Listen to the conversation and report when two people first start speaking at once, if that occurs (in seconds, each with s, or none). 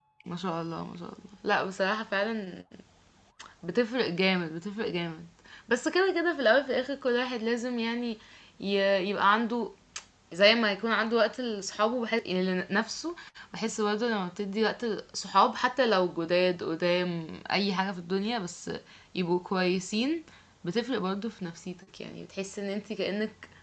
none